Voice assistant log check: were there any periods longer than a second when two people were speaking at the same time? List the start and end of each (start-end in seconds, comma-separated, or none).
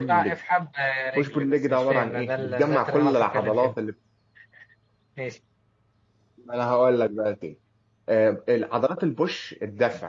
1.2-3.8